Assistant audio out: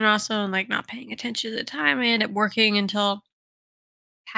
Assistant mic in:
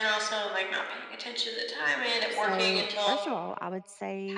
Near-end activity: present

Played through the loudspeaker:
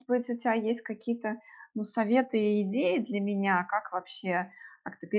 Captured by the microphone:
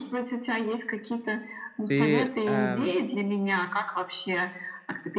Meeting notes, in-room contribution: present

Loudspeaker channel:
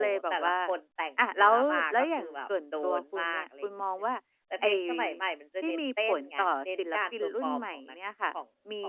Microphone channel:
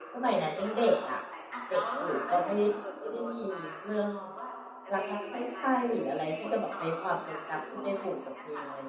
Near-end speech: present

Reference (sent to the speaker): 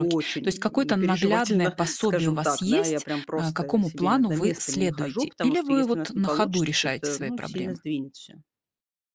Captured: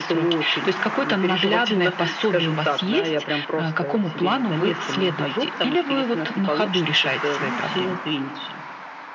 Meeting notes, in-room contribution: none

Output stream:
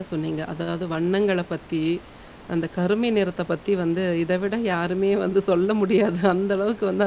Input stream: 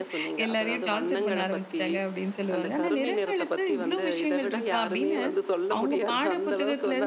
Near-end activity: present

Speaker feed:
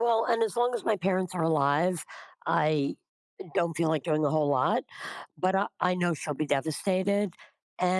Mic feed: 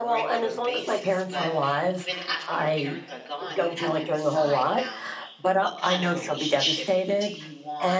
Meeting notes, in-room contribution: present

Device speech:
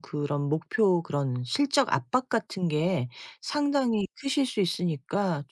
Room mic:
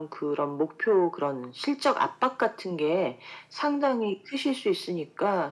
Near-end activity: none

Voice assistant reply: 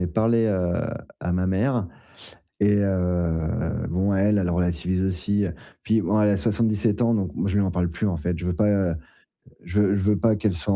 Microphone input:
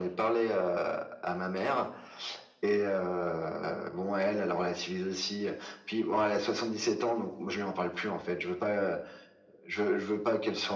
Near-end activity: none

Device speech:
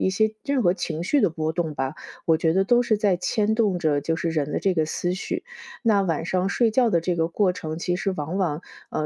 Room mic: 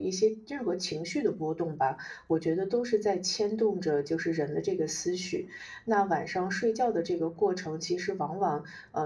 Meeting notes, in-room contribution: none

